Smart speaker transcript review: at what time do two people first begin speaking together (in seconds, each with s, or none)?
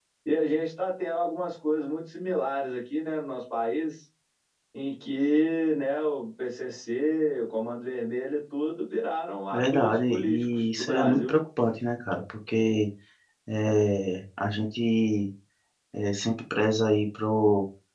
9.5 s